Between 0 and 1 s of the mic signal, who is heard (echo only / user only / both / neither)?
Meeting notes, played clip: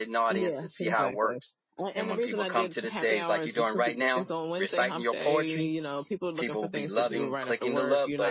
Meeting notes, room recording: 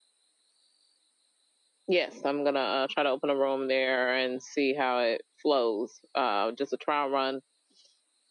neither